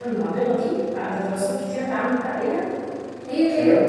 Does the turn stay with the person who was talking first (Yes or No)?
Yes